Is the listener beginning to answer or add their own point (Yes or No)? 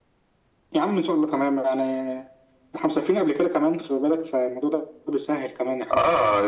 Yes